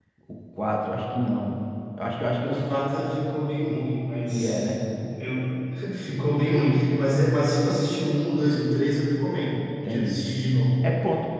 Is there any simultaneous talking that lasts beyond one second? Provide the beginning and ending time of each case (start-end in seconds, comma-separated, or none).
none